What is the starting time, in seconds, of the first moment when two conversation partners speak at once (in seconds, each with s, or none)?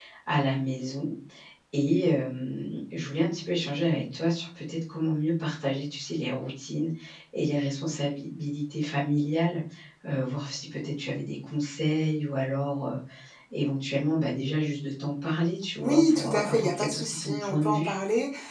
15.8 s